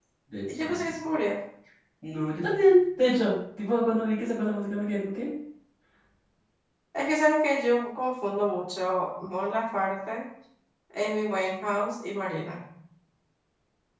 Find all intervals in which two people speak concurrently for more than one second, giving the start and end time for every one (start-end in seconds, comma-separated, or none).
none